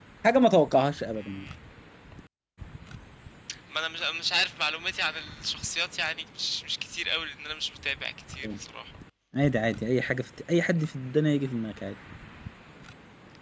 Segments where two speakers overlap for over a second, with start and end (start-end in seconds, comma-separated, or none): none